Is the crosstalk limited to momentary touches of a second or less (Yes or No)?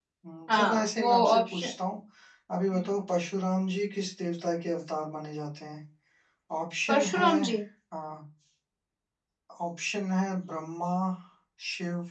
No